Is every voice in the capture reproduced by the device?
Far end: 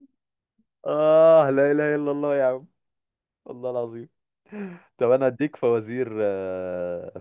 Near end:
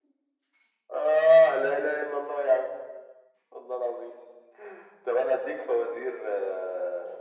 Yes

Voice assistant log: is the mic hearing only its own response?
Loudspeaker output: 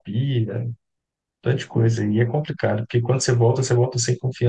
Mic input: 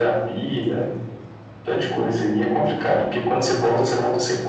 Yes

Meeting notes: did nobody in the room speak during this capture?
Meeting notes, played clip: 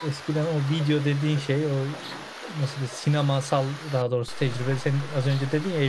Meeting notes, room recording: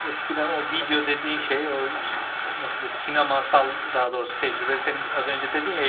Yes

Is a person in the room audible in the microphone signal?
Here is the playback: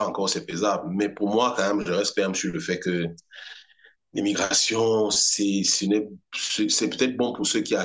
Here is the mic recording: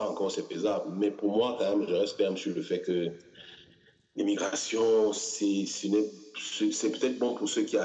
No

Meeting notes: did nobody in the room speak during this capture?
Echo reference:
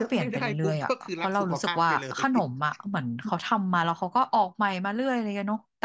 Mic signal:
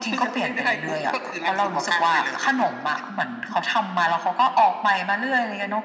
Yes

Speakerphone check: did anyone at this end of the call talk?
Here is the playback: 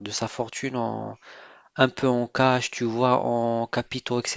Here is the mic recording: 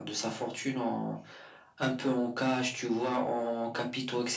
No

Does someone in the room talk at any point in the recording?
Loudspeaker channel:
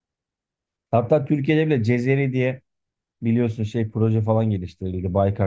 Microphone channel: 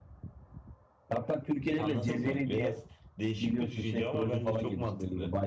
Yes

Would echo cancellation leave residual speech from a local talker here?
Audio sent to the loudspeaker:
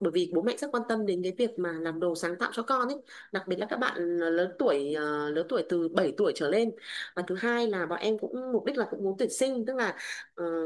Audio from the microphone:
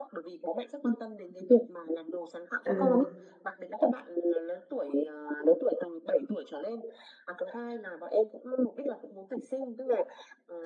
Yes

